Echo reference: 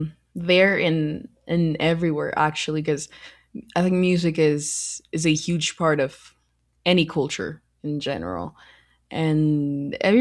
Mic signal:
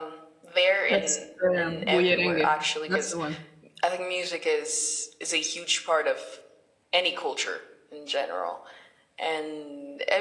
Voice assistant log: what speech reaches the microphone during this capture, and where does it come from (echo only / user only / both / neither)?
both